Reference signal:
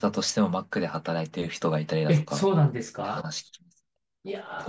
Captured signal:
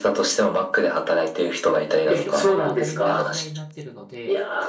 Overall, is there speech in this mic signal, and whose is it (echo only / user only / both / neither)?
both